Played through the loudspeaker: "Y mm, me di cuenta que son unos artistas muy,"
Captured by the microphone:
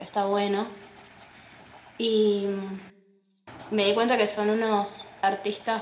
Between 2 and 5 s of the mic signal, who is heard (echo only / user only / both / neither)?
echo only